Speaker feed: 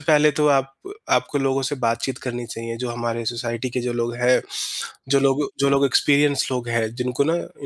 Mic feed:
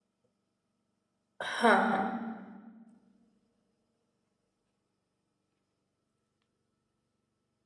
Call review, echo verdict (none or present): none